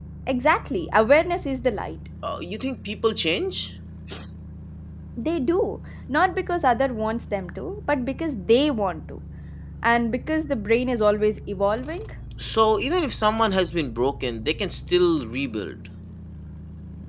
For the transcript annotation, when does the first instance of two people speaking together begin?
none

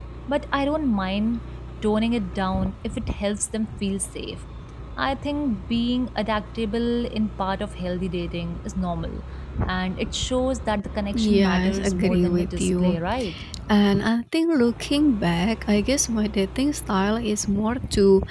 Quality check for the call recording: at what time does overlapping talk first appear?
11 s

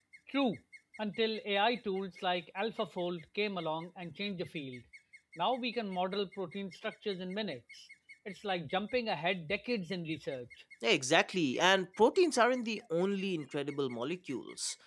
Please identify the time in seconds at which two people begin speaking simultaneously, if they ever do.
none

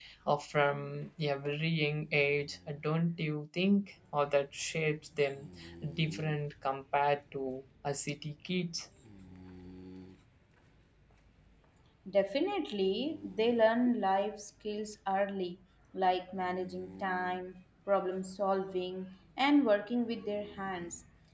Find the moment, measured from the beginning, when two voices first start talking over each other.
none

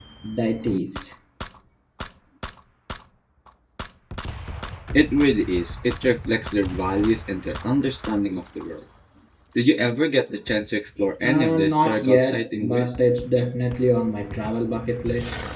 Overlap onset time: 11 s

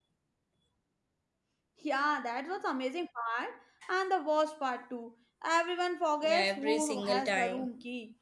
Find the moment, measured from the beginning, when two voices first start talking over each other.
6 s

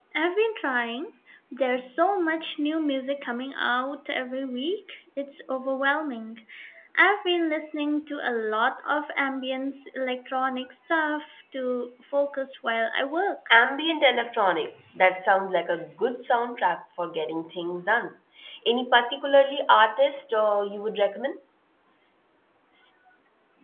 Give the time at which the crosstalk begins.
none

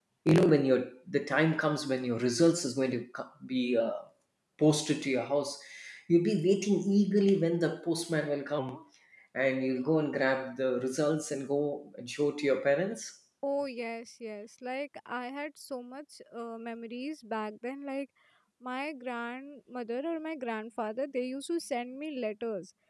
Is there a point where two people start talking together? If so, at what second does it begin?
none

